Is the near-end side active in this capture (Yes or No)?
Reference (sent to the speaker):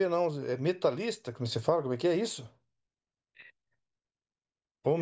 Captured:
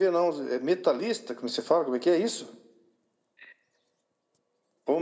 No